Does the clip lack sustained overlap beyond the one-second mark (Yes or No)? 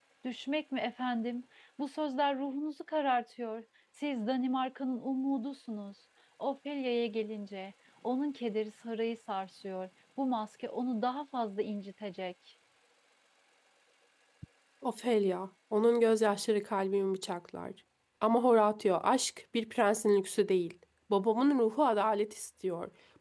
Yes